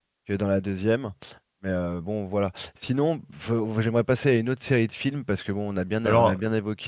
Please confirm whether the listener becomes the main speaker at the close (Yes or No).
No